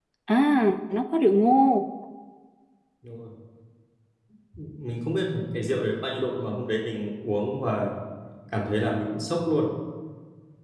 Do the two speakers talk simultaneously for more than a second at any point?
No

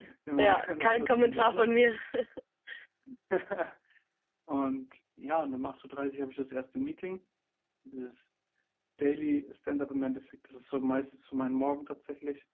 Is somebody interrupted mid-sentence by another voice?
Yes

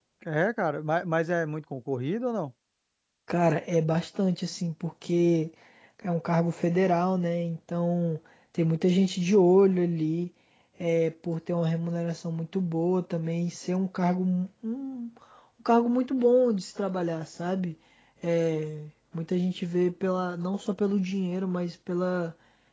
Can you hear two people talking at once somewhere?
No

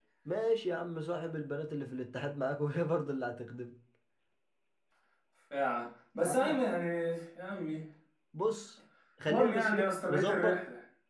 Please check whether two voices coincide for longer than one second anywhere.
Yes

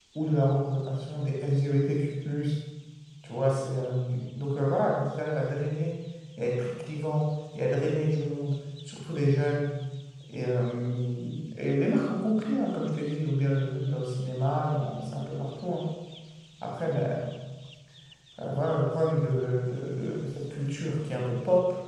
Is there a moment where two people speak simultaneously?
No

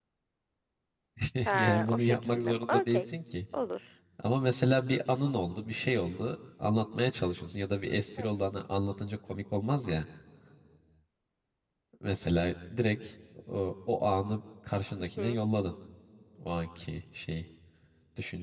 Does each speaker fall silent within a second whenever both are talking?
No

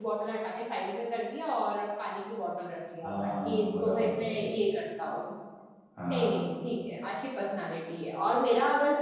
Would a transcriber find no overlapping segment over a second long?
No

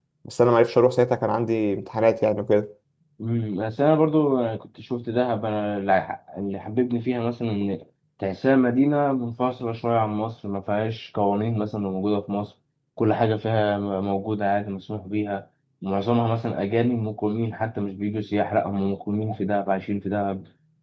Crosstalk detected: No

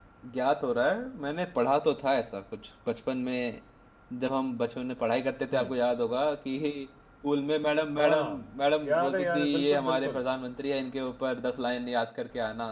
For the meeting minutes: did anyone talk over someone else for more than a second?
Yes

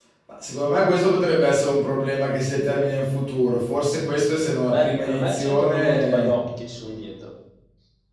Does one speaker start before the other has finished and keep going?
Yes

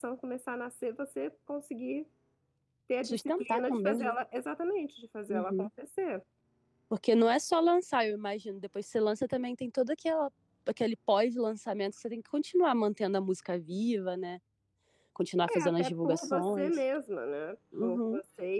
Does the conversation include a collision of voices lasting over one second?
Yes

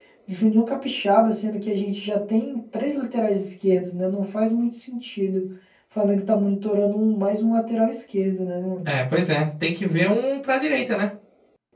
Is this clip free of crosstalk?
Yes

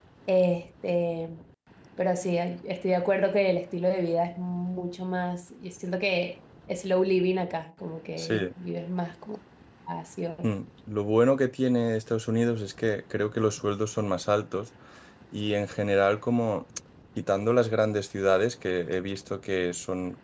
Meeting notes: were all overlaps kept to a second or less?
Yes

